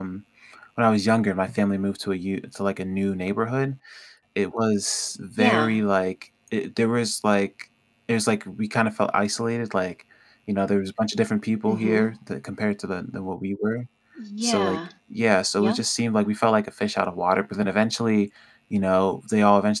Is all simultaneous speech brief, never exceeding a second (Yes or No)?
Yes